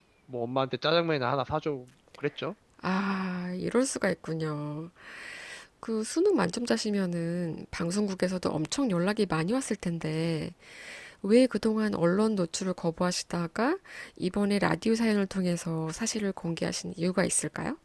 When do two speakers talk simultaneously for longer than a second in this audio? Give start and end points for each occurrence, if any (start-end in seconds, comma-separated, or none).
none